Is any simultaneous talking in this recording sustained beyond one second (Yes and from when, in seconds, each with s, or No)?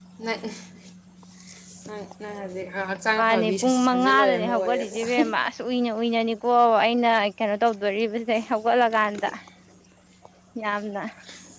Yes, from 3.2 s